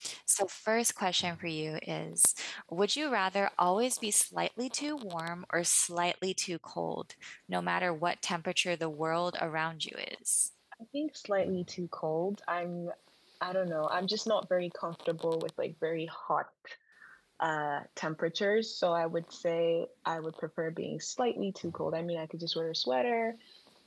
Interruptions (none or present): none